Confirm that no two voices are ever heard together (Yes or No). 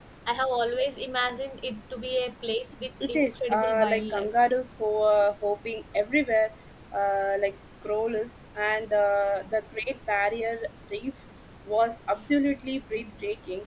No